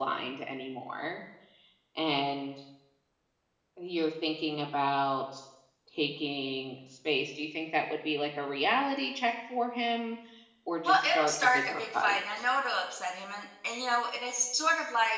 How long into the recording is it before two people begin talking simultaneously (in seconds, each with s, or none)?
10.8 s